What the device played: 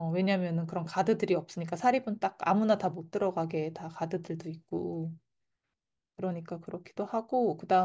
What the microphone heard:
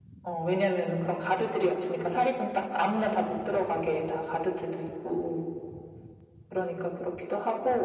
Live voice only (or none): none